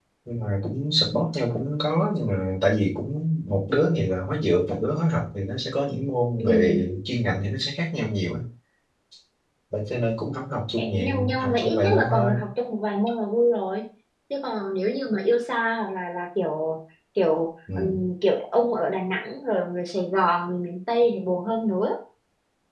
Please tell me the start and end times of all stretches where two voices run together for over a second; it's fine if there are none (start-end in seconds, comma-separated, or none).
10.8-12.3